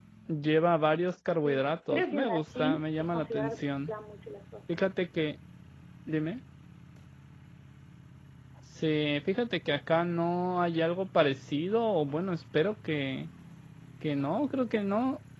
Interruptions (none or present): present